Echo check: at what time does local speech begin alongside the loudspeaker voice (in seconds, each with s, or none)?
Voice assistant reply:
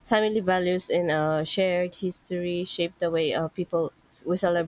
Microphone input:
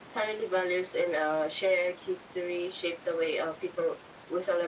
none